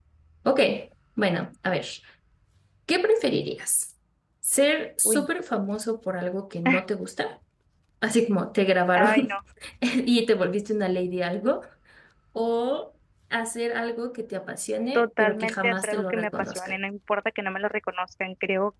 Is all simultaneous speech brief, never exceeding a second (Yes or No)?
No